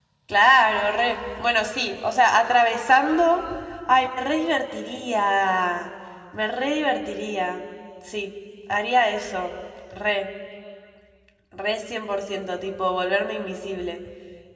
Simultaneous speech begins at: none

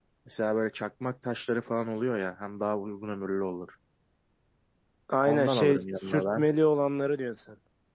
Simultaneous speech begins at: 5 s

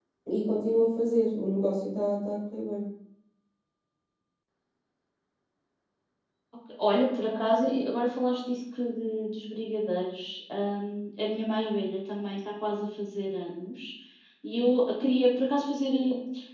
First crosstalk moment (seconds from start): none

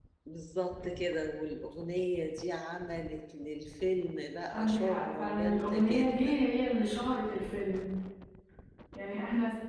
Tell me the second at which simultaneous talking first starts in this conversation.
5 s

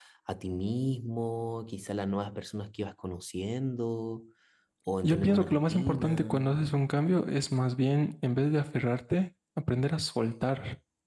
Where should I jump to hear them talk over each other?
5 s

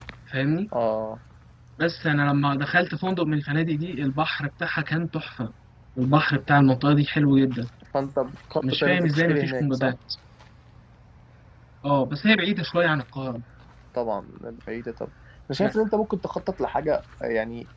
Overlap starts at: 9 s

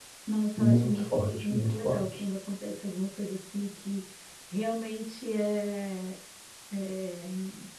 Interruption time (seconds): 1 s

